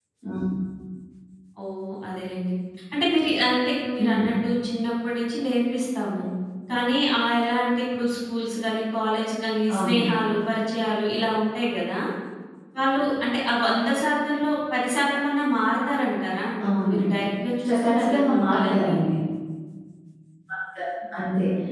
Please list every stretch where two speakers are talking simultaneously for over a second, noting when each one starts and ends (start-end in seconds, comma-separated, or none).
17.6-18.9